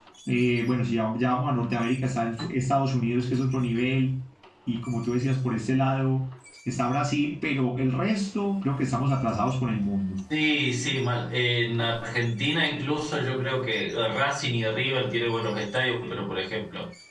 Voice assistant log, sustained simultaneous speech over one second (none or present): none